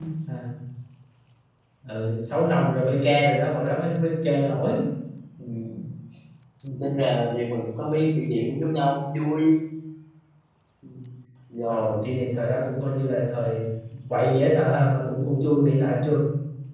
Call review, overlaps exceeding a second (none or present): none